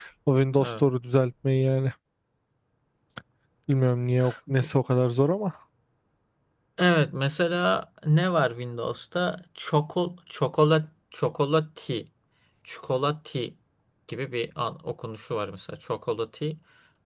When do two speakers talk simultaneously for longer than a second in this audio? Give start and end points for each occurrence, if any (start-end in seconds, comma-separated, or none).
none